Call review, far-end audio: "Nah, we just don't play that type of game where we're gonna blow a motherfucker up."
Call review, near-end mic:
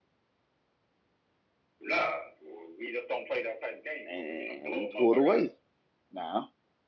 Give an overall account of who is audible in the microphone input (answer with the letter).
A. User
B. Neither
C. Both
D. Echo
C